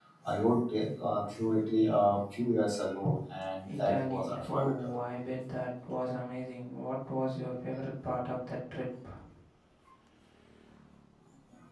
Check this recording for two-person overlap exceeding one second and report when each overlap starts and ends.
3.7-5.0

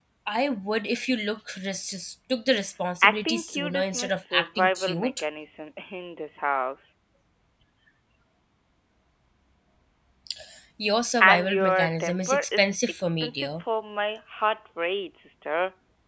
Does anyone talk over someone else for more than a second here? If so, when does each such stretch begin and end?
3.0-5.2, 11.2-13.6

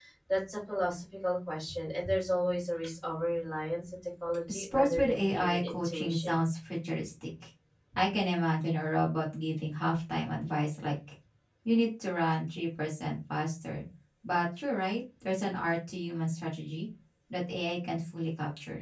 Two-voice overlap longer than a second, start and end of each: 4.5-6.4

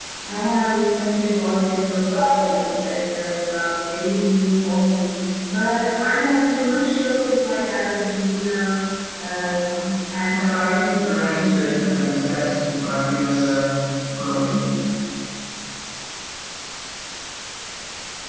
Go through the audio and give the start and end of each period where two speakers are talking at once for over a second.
10.3-12.5

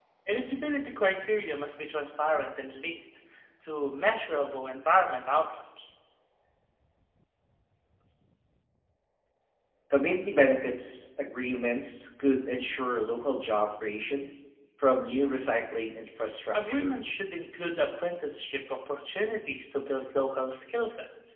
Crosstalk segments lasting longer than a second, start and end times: none

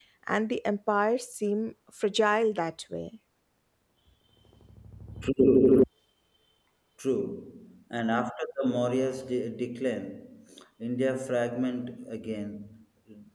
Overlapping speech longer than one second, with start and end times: none

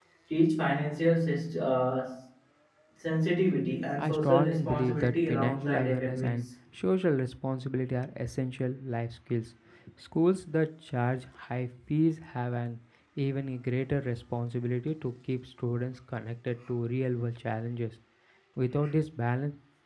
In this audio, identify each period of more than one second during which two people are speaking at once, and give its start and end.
4.0-6.5

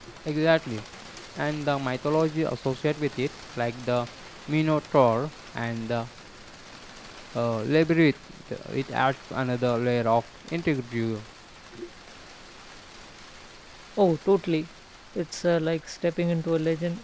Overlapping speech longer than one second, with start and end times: none

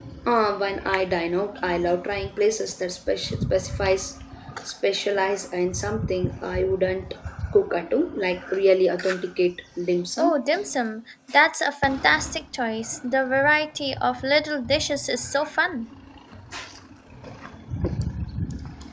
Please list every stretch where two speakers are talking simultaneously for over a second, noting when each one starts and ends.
none

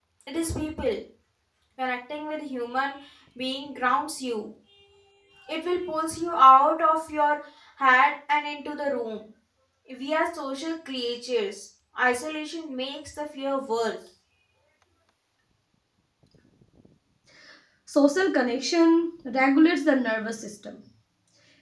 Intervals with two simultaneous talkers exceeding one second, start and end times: none

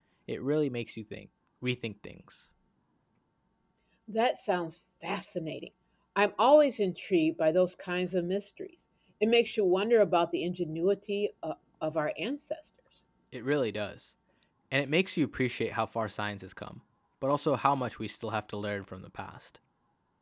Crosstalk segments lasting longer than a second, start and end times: none

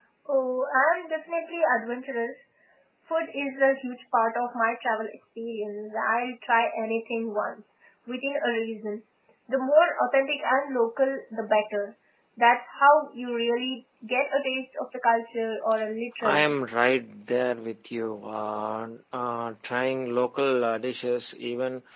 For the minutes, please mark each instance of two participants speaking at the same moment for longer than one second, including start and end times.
none

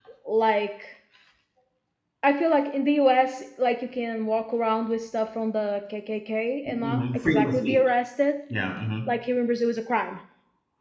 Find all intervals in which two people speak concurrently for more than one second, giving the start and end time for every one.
6.7-7.9

